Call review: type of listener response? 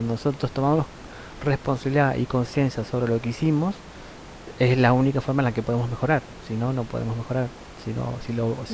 listening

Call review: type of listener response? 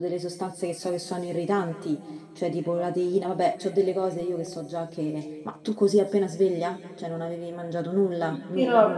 taking over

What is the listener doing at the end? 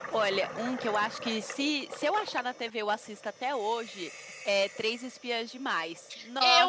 taking over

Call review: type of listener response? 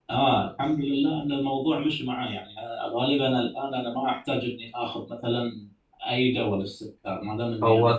listening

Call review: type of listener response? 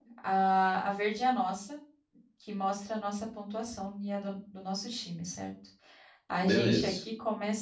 listening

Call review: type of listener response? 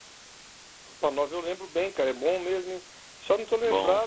listening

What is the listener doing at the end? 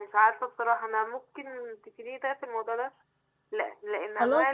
listening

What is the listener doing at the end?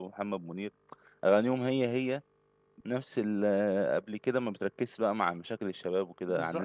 taking over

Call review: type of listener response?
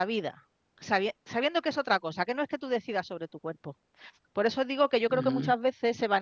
listening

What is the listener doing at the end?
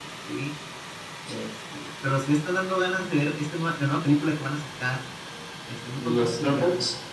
listening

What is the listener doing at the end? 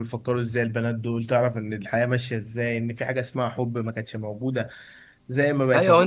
taking over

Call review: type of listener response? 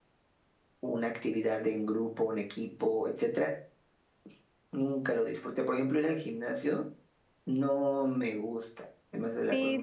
taking over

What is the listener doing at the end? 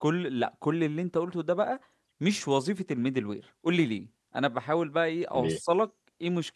listening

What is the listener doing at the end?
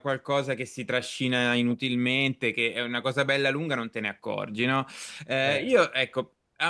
listening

